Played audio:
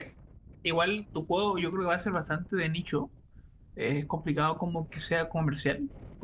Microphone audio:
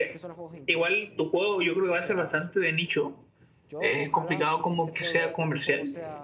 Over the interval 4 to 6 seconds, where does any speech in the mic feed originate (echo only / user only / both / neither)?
both